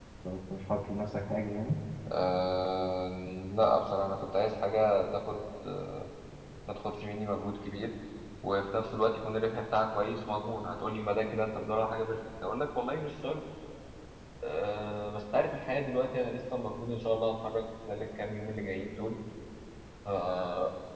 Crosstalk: none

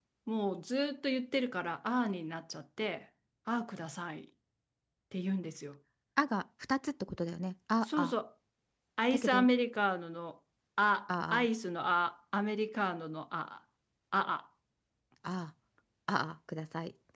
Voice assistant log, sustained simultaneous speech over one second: none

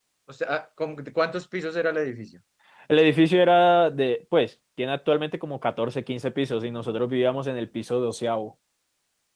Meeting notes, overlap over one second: none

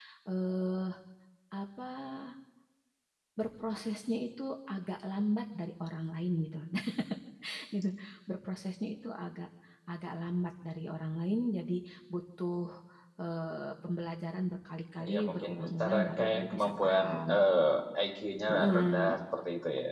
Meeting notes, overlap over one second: present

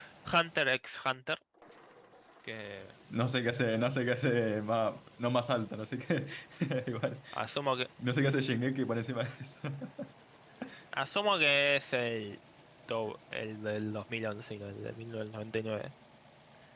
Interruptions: none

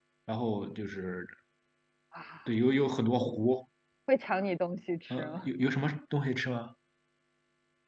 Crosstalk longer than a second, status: none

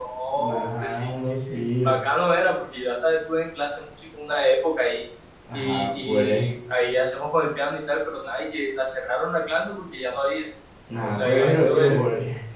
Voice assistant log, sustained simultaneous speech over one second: present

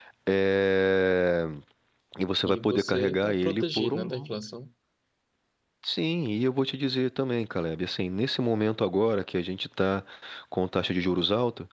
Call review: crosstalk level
present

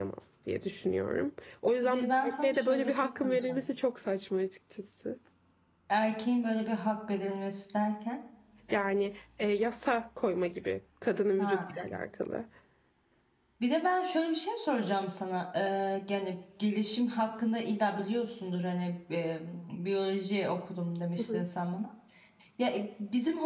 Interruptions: present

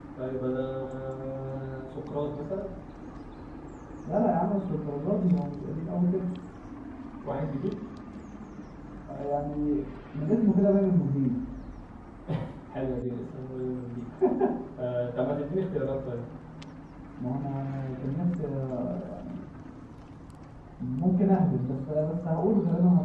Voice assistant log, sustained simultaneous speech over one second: none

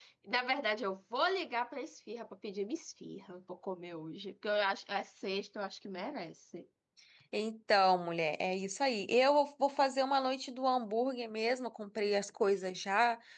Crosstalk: none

